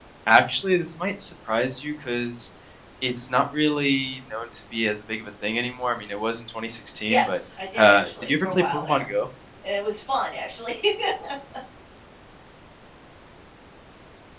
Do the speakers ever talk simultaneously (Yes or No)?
Yes